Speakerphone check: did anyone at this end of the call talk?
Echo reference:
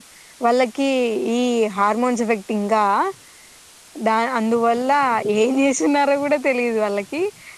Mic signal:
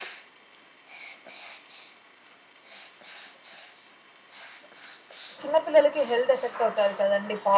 Yes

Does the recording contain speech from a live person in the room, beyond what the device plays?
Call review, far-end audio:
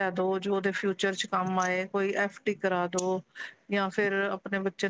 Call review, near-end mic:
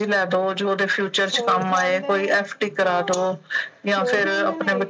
Yes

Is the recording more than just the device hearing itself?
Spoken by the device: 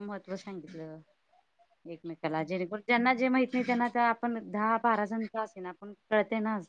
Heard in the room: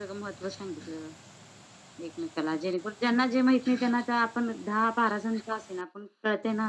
No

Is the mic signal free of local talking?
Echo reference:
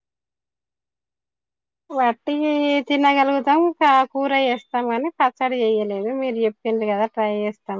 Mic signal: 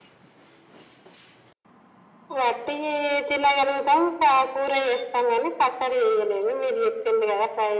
Yes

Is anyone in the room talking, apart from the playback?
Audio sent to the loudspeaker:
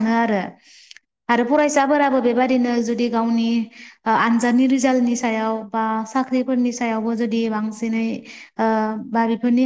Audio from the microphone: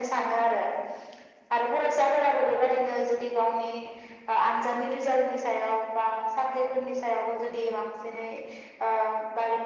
No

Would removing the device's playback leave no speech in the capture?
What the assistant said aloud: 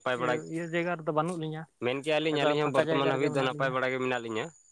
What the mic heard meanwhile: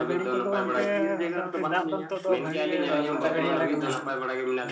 No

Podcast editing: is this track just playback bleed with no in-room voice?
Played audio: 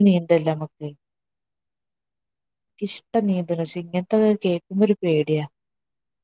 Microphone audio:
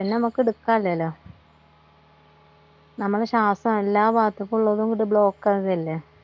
No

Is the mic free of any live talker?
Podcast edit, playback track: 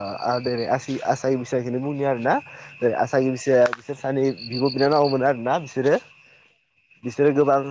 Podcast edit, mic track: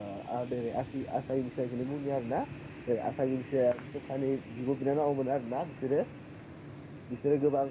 Yes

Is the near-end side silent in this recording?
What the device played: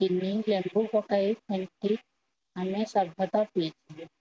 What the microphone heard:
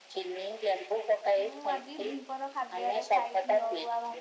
No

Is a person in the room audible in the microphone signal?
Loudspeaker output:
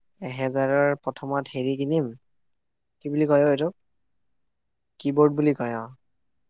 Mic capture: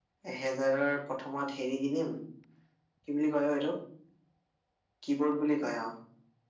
No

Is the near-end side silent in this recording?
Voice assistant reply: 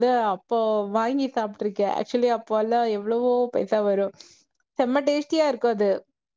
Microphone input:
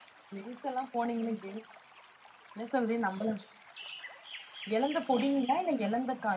No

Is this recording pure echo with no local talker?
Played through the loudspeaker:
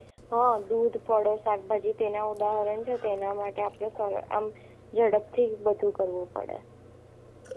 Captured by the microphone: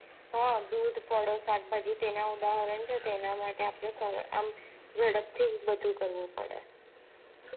Yes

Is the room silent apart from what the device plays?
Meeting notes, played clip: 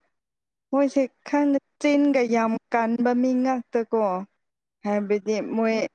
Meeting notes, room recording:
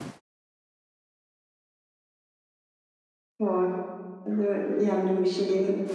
No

